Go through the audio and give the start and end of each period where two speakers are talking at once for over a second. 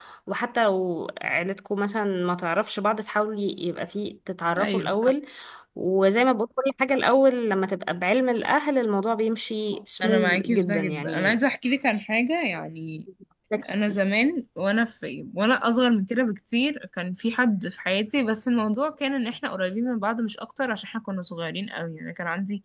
10.0-11.4

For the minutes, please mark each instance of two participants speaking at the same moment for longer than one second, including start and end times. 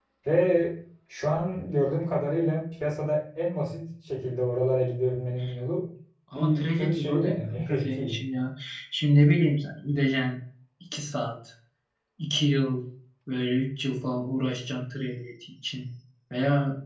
6.3-8.2

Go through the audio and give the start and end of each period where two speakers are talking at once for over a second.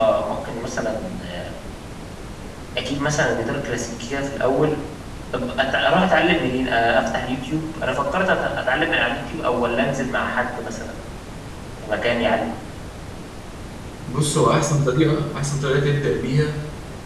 none

